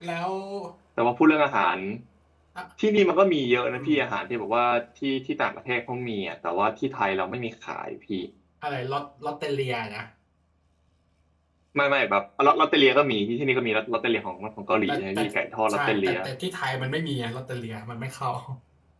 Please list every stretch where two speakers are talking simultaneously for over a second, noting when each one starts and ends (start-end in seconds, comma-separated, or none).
none